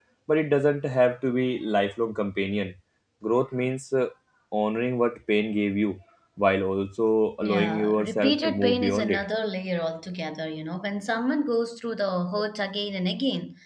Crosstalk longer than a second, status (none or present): present